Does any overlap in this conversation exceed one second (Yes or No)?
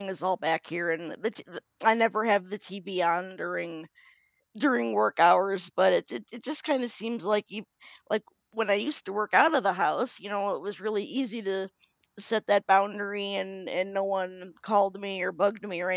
No